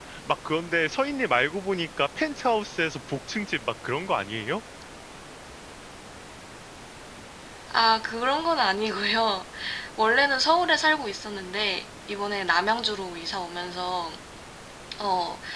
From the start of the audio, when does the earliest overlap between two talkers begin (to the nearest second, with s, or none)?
none